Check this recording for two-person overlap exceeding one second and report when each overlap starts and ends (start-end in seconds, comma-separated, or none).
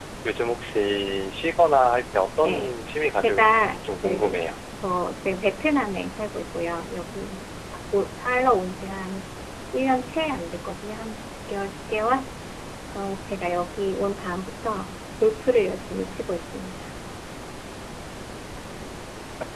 3.2-4.5